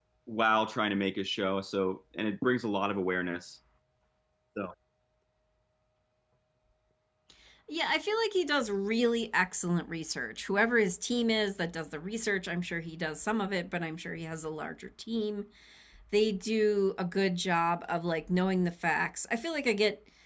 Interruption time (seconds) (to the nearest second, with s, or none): none